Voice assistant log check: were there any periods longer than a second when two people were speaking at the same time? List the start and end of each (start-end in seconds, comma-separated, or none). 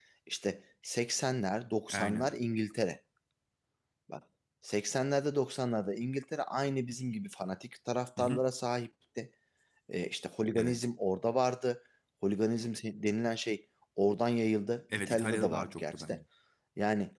14.9-16.2